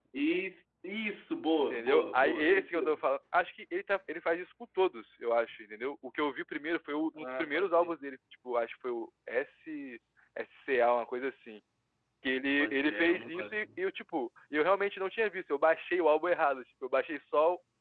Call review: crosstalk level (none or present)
present